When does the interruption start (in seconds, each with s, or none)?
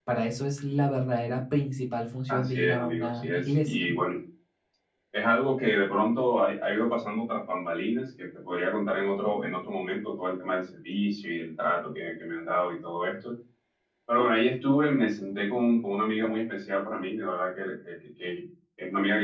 2.3 s